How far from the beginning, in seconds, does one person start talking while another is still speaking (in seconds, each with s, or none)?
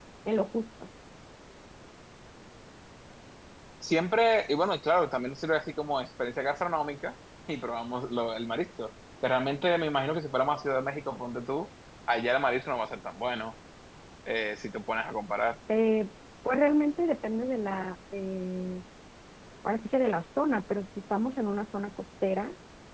none